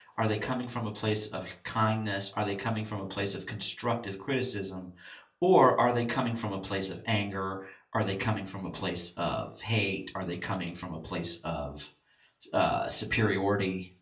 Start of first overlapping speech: none

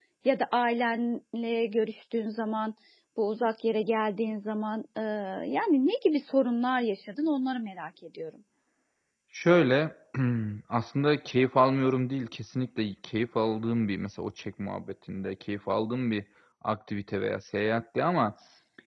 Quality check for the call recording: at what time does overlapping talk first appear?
none

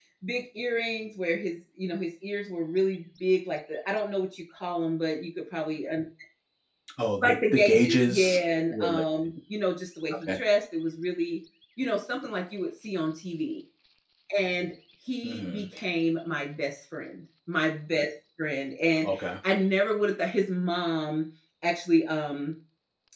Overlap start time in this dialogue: 7.2 s

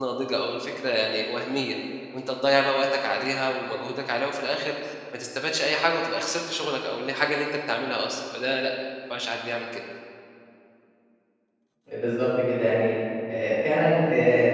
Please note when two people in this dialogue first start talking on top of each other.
none

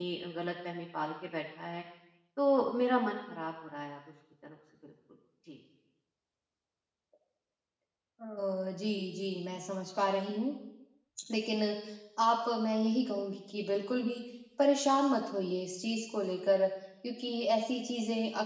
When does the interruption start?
none

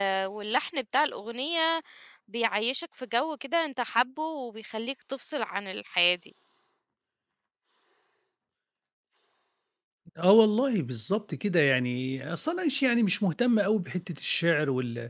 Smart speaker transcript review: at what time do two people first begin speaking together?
none

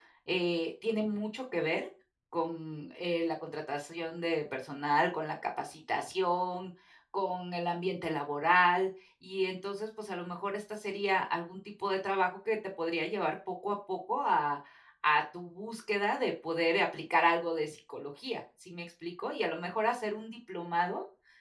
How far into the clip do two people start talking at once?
none

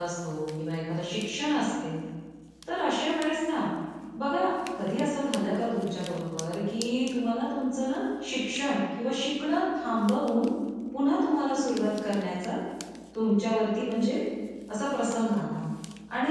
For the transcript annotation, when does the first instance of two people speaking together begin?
none

